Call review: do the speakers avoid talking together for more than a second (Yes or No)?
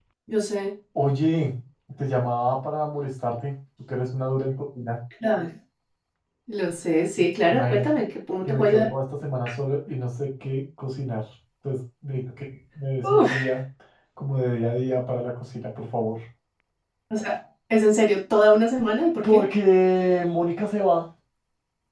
Yes